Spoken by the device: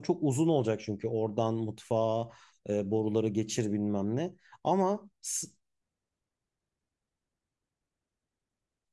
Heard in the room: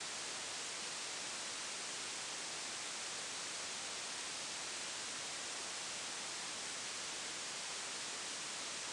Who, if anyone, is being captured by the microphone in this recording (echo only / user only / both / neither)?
neither